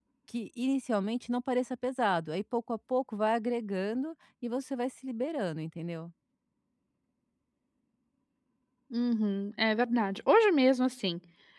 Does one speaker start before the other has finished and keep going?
No

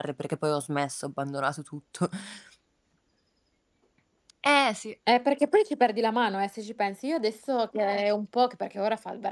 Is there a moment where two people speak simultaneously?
No

